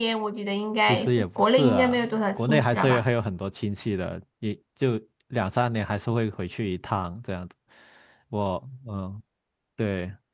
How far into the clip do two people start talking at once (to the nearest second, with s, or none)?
1 s